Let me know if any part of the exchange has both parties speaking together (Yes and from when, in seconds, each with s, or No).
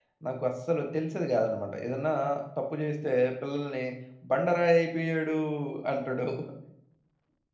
No